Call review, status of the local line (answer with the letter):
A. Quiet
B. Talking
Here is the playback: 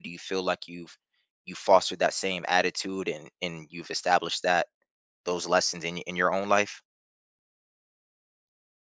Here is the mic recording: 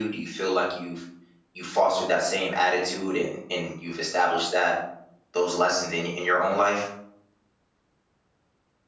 A